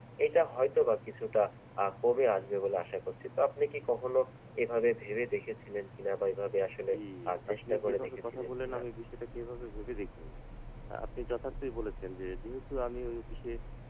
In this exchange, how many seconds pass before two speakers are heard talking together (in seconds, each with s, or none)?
7.5 s